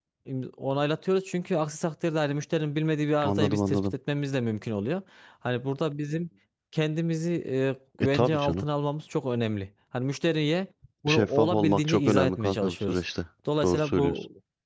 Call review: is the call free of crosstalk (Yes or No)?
No